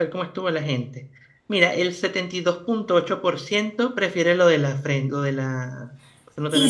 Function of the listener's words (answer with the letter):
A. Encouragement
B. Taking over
B